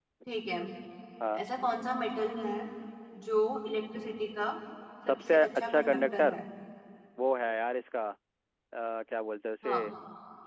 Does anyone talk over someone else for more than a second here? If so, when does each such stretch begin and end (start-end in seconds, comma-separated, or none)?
5.1-6.3